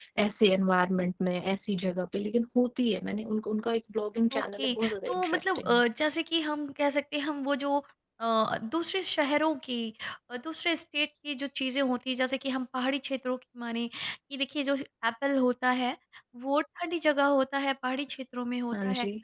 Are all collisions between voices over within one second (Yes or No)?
No